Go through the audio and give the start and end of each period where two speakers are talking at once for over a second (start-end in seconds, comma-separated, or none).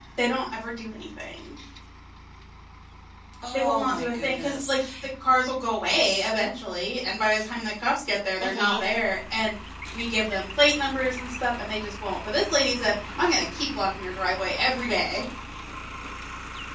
3.5-4.7